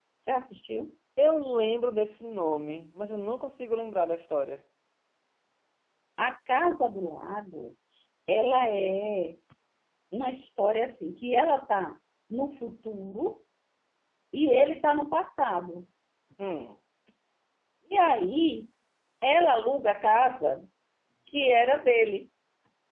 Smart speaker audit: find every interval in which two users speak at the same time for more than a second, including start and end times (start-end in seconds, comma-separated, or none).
none